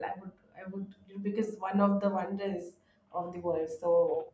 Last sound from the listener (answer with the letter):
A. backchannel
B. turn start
B